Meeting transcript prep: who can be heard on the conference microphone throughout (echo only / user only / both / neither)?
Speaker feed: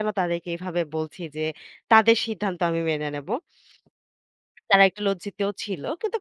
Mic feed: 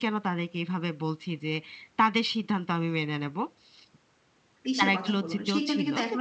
both